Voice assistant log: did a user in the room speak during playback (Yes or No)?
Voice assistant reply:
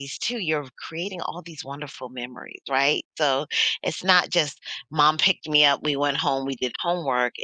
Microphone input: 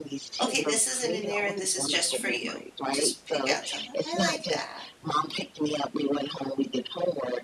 Yes